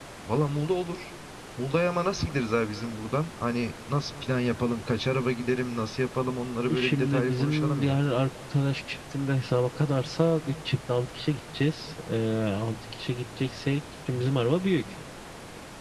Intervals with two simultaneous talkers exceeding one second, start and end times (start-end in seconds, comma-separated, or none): 6.8-8.0